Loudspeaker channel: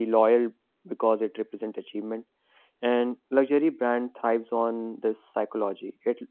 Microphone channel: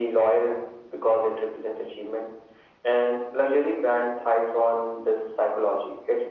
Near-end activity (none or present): none